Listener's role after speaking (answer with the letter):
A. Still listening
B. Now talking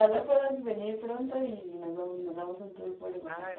B